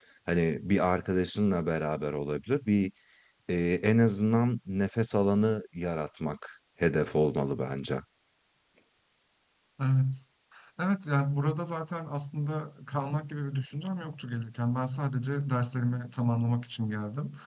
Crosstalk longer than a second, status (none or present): none